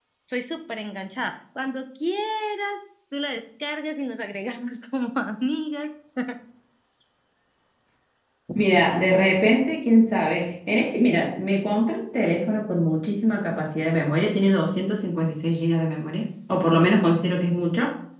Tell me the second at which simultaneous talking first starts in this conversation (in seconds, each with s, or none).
none